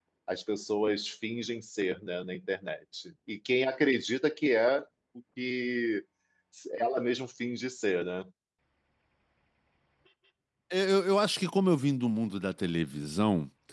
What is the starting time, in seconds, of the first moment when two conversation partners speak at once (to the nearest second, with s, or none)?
none